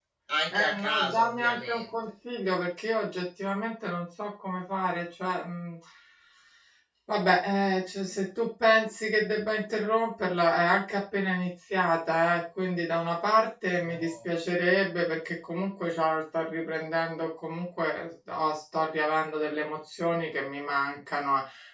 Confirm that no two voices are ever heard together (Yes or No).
No